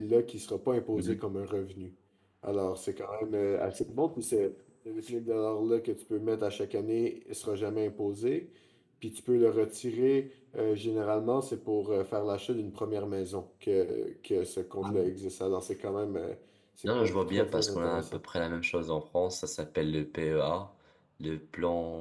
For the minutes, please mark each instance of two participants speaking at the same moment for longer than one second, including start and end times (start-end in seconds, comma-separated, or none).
16.9-18.2